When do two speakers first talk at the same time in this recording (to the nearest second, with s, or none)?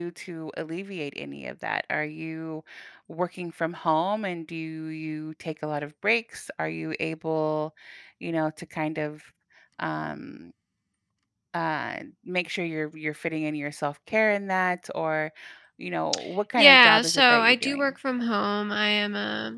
17 s